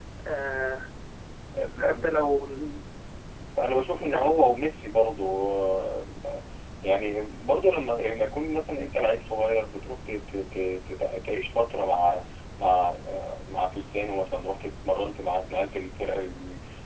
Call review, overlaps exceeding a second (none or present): none